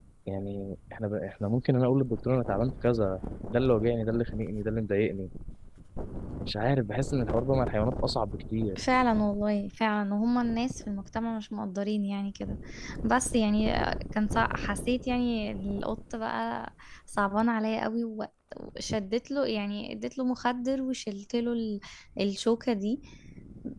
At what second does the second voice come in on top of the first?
none

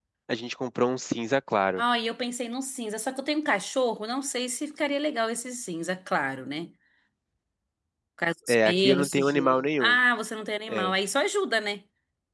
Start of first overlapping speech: 8 s

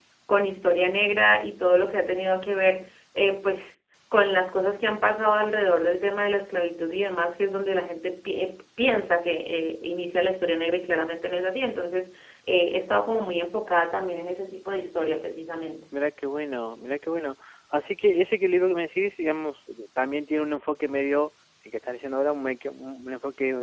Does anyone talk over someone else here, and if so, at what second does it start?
none

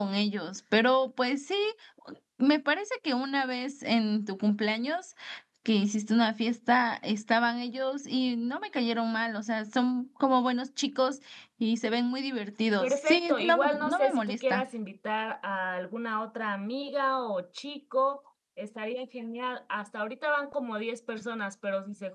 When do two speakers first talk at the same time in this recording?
13 s

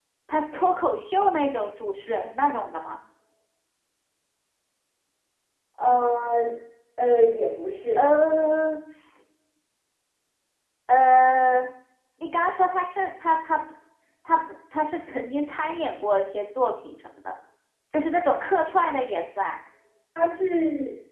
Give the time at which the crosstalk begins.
none

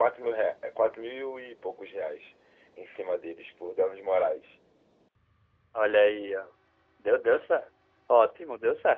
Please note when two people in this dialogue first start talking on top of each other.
none

